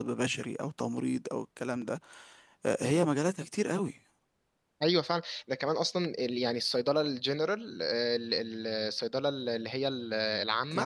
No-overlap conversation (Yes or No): Yes